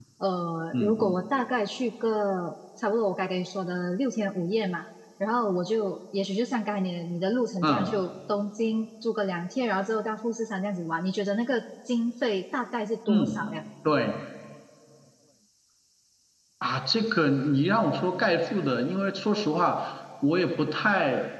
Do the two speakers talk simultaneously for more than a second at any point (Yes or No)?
No